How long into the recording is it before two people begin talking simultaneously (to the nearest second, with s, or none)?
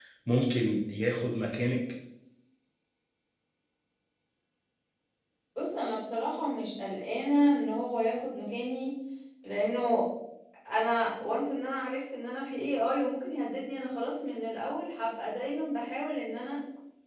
none